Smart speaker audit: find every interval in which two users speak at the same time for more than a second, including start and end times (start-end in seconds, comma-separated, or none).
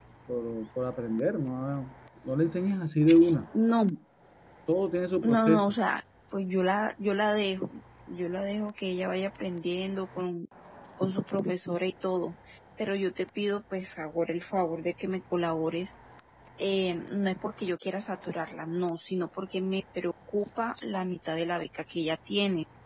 none